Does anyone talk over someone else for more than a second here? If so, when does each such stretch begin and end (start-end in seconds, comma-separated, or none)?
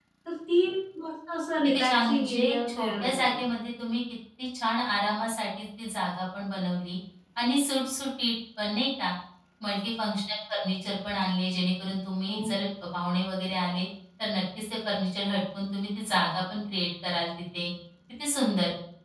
1.6-3.4